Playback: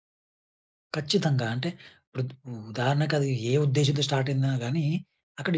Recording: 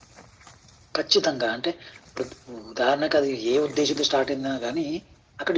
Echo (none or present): present